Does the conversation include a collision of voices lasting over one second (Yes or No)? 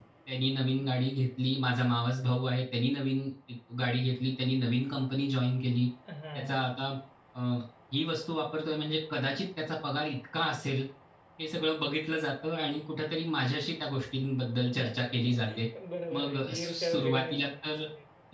Yes